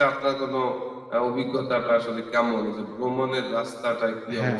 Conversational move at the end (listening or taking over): taking over